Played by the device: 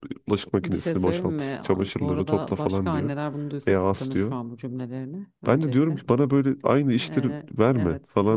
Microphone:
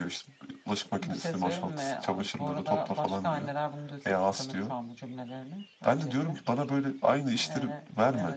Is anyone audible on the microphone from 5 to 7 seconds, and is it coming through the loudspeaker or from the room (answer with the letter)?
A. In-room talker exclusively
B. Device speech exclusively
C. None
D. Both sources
B